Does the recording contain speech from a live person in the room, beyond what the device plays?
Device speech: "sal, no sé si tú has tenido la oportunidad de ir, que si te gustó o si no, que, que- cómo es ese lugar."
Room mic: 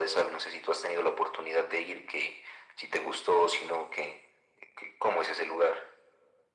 No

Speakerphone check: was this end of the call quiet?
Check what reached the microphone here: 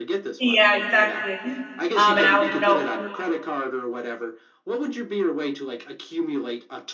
No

